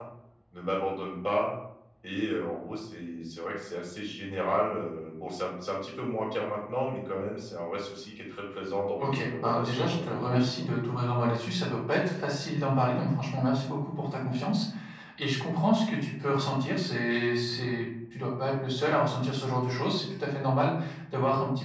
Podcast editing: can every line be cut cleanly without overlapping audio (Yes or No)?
No